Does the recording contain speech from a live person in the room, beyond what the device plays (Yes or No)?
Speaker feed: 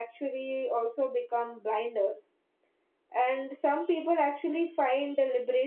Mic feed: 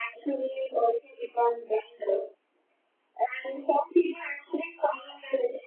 No